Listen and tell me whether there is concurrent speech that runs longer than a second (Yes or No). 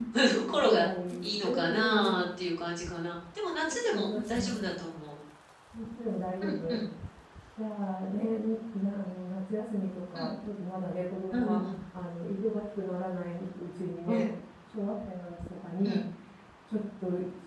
Yes